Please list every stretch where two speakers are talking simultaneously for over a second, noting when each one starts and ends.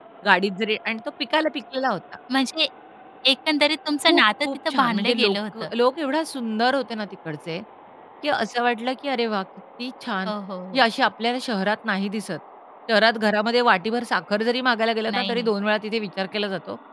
4.0-5.7

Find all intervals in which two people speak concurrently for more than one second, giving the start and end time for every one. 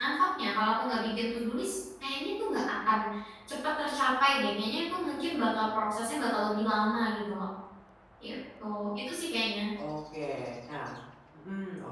none

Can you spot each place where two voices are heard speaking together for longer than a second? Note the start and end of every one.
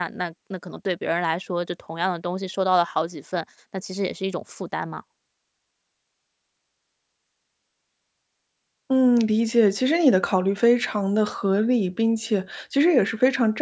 none

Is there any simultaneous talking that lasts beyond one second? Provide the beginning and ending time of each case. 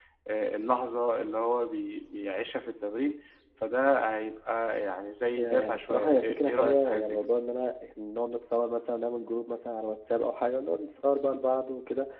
5.3-7.3

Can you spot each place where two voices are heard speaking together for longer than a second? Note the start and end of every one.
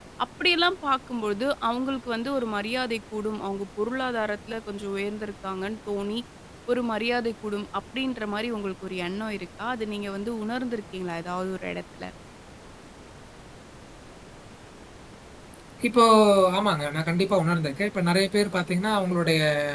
none

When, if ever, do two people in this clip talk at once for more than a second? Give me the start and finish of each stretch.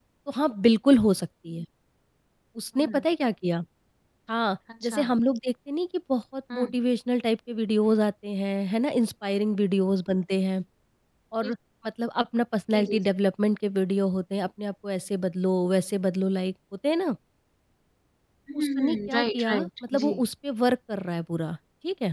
18.6-20.1

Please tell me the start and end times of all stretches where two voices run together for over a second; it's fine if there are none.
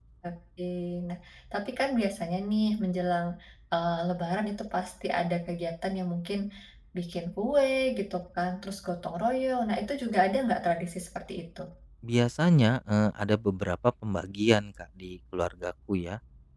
none

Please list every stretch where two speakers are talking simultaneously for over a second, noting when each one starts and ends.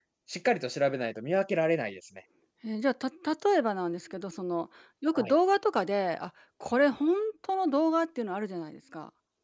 none

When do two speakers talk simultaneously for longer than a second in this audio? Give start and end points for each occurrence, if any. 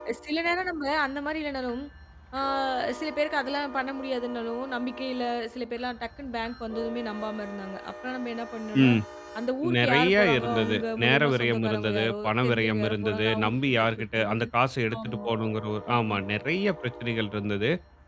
9.8-14.5

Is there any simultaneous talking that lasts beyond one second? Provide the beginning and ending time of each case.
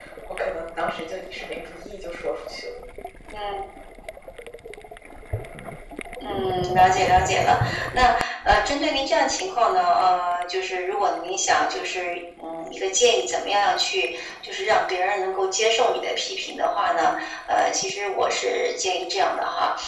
none

